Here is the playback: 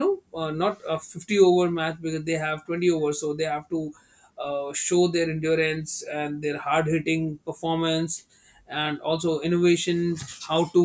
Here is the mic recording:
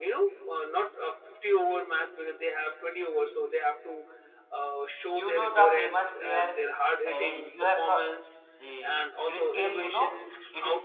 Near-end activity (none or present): present